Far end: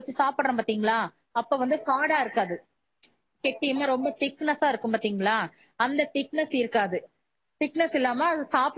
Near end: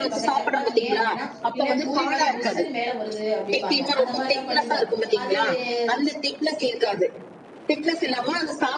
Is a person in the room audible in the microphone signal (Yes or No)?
Yes